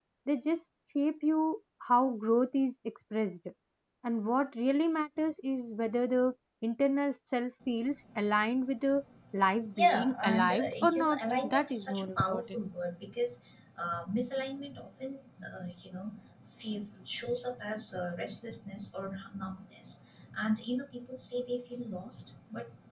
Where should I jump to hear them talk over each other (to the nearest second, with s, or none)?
10 s